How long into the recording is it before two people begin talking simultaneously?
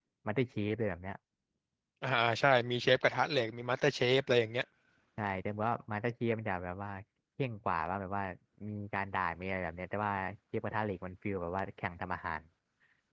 none

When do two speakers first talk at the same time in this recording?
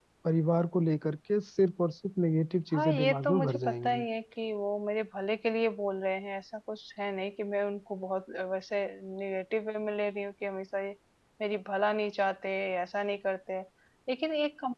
2.7 s

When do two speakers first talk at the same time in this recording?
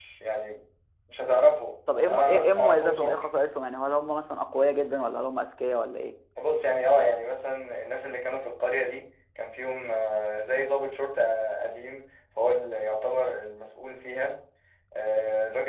1.9 s

